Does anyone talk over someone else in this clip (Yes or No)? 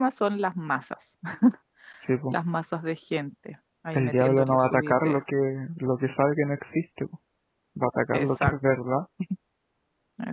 Yes